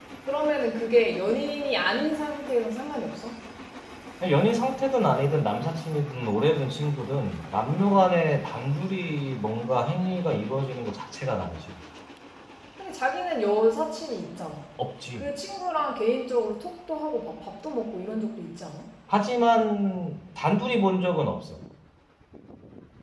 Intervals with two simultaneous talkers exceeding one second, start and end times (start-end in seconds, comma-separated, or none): none